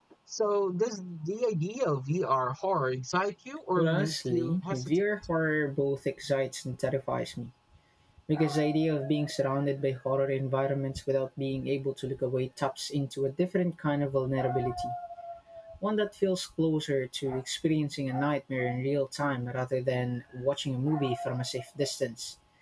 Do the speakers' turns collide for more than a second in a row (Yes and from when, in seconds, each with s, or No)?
Yes, from 3.8 s